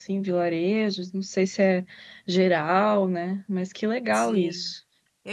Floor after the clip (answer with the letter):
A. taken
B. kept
A